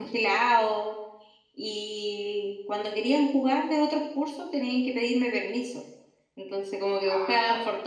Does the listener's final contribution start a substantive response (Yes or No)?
No